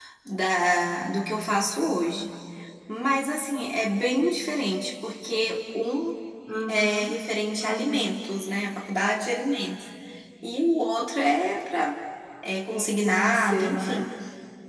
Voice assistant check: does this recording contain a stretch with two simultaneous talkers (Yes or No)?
Yes